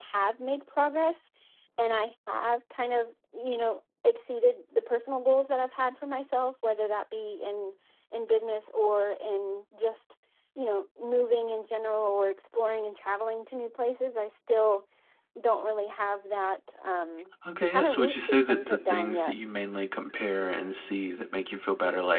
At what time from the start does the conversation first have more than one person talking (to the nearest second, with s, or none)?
17 s